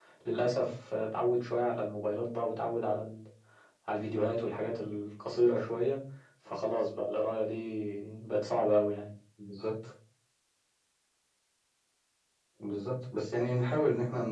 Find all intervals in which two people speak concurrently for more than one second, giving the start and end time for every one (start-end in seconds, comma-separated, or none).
none